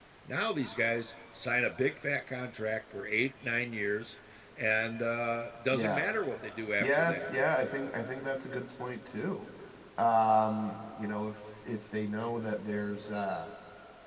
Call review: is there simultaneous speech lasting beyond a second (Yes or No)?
No